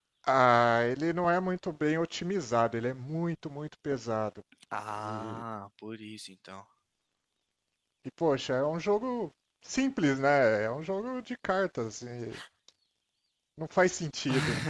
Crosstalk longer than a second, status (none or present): none